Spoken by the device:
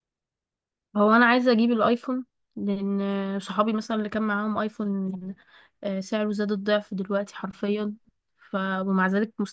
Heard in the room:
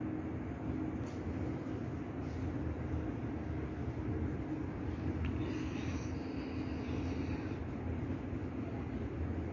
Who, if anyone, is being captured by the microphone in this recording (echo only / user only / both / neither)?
neither